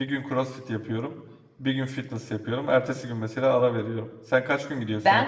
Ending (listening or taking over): taking over